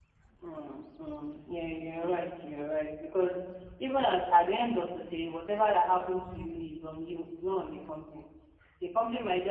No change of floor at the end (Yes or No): Yes